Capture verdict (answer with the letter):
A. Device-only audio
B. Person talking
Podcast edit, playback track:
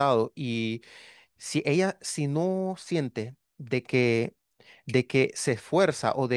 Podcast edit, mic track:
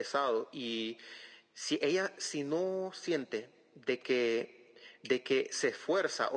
A